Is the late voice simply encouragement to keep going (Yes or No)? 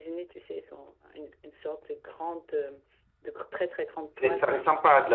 No